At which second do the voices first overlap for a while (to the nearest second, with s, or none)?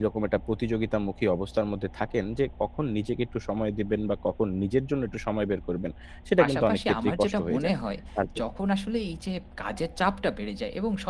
6 s